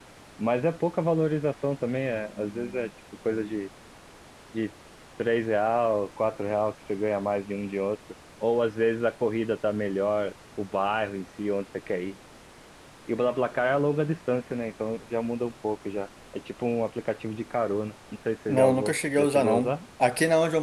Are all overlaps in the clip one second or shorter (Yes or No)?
No